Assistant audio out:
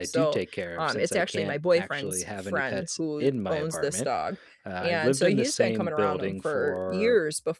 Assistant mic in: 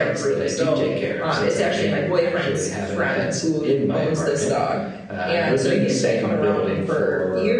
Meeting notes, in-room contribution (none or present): none